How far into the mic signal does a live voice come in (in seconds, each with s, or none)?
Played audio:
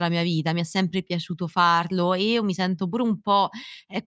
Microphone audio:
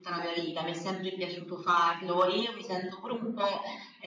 none